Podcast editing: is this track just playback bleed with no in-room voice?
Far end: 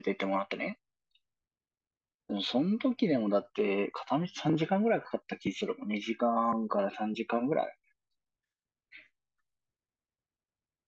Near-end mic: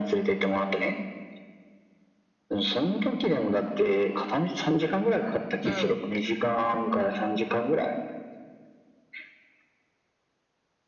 No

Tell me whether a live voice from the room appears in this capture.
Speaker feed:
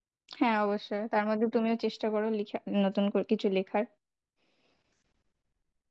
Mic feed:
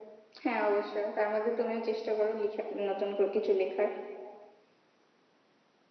No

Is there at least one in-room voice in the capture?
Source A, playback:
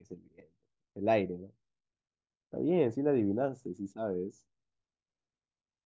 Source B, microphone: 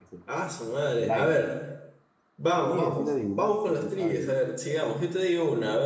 Yes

